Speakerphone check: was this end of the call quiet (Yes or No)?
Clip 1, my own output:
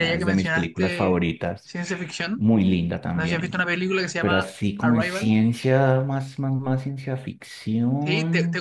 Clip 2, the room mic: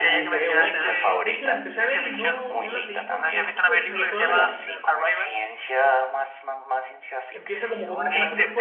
No